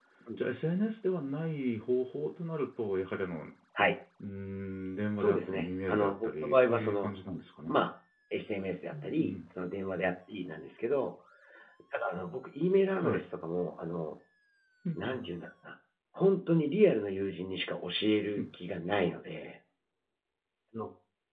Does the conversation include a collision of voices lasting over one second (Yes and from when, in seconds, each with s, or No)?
Yes, from 5.2 s